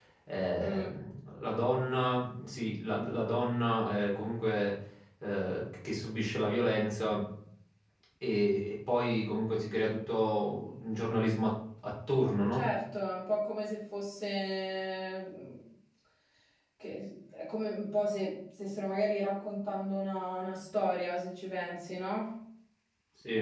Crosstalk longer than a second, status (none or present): none